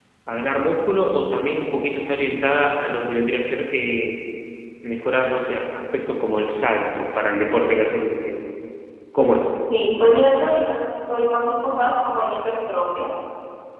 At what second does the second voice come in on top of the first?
none

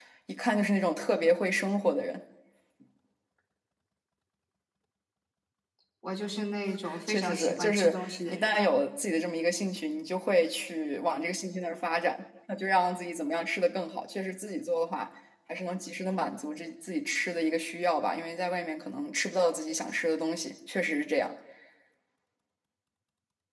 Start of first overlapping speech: 6.8 s

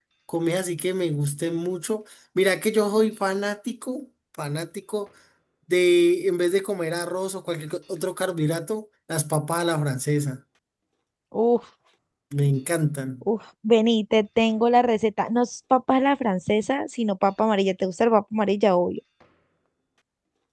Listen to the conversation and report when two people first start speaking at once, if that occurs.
none

